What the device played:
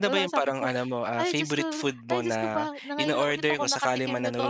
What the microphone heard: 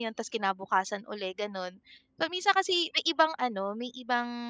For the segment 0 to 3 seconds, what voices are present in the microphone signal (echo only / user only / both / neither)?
user only